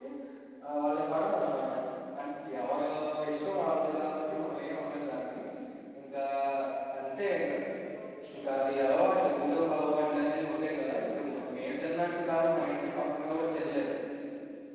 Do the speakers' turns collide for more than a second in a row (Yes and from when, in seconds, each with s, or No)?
No